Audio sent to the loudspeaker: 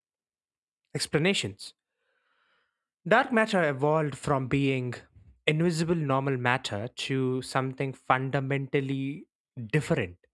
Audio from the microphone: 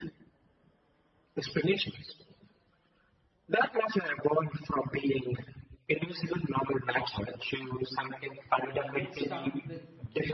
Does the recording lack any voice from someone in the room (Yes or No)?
No